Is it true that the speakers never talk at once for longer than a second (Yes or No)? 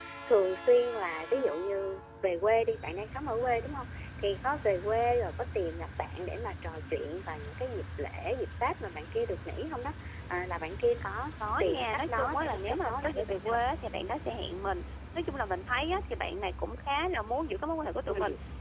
No